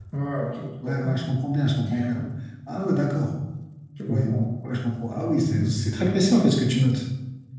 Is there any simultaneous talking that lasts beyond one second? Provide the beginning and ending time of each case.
none

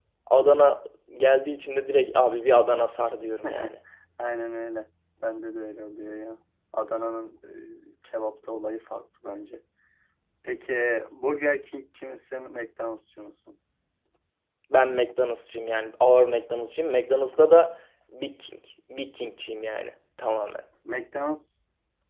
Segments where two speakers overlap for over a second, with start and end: none

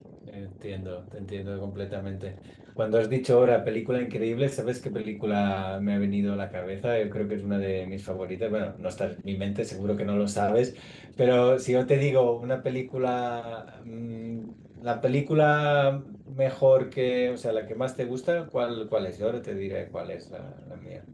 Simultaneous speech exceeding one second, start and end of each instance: none

